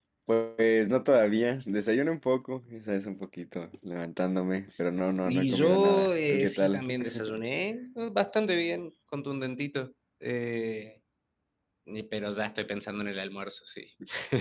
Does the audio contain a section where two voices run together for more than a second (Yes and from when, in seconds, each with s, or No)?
Yes, from 5.2 s